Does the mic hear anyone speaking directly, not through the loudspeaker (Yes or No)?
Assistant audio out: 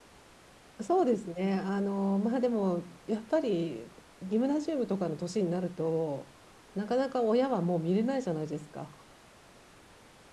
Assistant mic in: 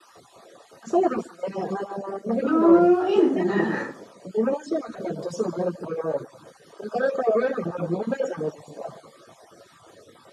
Yes